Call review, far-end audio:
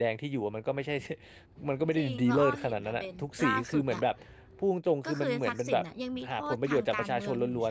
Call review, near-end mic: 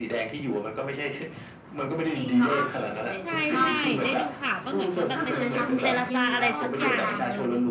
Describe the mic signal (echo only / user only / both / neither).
both